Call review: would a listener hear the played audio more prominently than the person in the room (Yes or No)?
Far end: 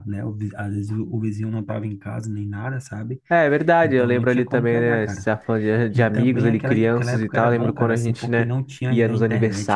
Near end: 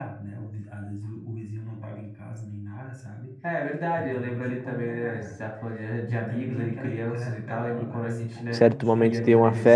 No